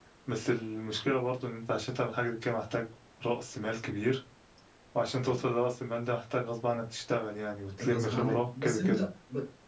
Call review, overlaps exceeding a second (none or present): present